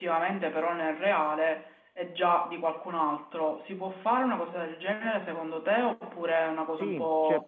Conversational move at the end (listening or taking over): taking over